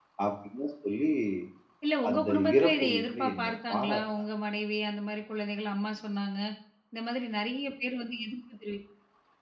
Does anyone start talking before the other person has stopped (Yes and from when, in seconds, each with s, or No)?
Yes, from 2.1 s